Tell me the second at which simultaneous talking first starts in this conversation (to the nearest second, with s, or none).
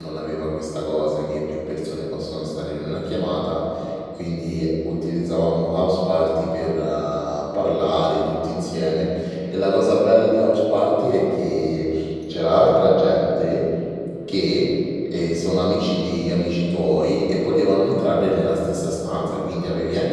none